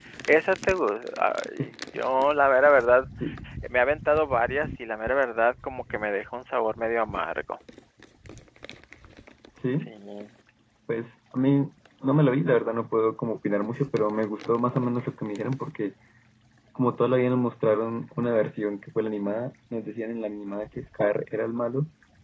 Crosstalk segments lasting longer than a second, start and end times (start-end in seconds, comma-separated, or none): none